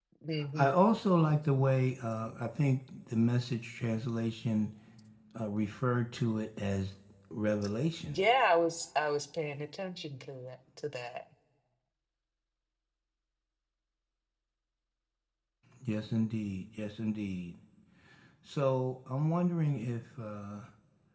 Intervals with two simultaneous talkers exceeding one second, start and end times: none

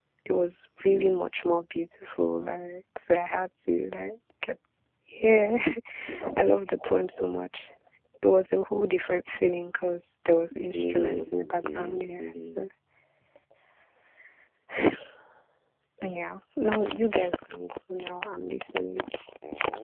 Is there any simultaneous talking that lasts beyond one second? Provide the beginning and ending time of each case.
10.7-12.6

